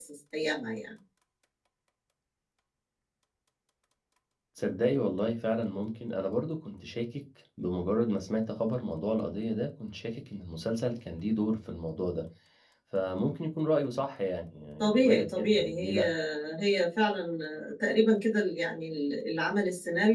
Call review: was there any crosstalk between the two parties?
Yes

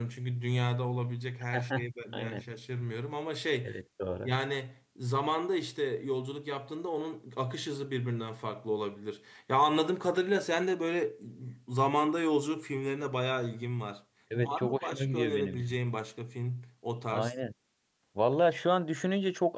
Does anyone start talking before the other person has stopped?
Yes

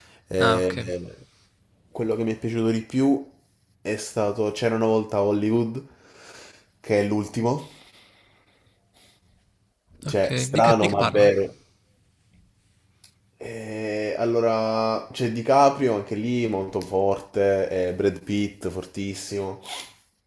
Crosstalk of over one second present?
Yes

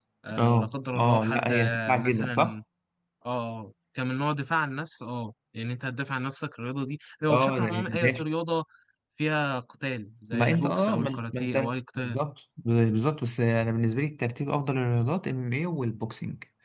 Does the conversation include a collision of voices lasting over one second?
Yes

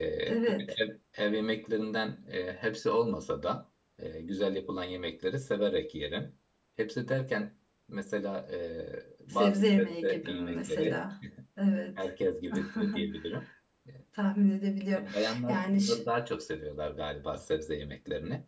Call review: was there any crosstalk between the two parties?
Yes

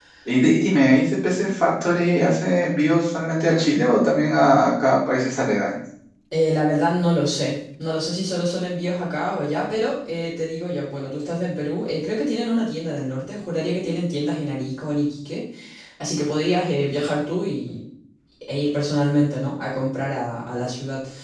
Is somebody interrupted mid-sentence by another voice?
No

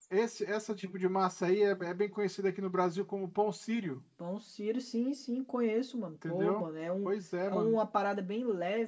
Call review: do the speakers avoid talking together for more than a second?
Yes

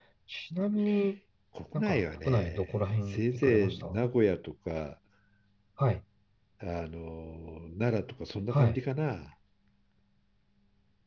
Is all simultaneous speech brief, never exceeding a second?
No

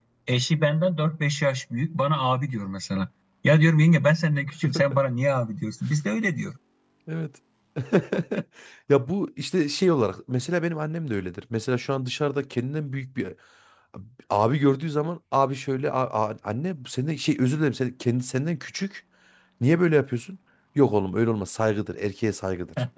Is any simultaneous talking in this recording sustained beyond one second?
No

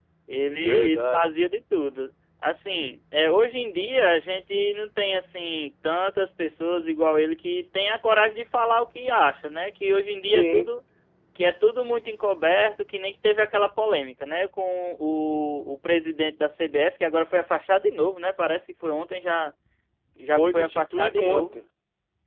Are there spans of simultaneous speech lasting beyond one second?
Yes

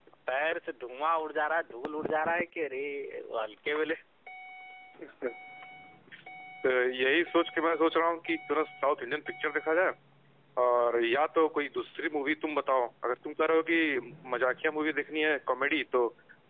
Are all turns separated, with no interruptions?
Yes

